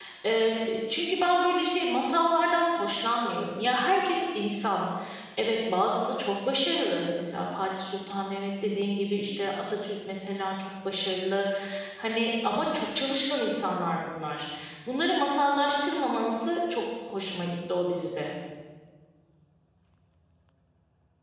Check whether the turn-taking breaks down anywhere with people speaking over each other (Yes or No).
No